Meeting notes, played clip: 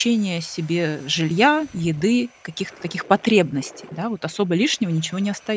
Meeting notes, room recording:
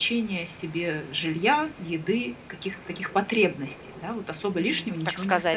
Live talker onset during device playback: 4.5 s

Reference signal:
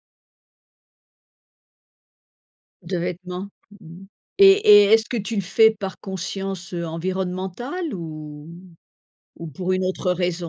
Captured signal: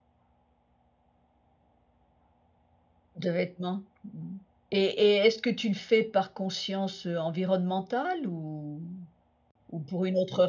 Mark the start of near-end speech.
none

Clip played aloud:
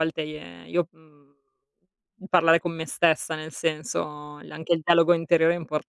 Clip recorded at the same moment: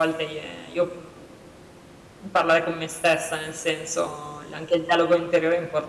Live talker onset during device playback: none

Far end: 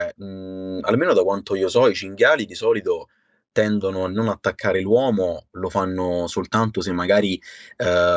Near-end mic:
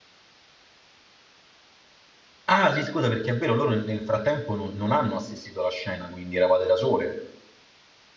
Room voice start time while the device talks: 2.5 s

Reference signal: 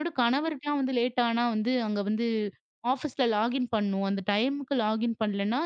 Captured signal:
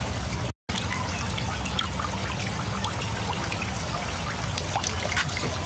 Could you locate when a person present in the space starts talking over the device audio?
none

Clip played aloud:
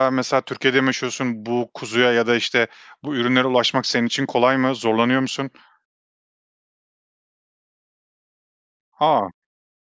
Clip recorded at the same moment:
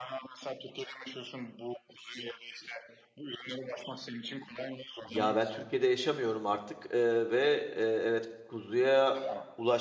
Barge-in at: 5.0 s

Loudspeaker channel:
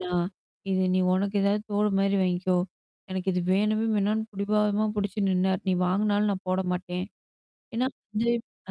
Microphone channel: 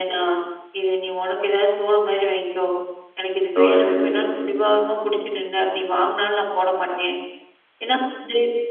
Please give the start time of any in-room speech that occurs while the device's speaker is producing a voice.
3.6 s

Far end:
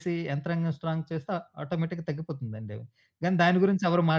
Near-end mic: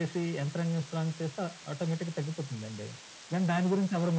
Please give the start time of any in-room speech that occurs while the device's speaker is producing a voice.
none

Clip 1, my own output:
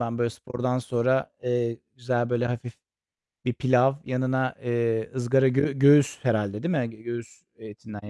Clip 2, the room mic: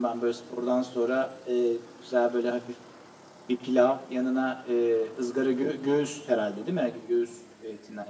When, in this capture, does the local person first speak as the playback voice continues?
none

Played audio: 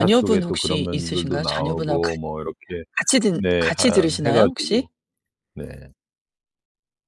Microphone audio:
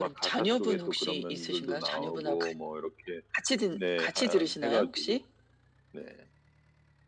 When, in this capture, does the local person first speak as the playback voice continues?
none

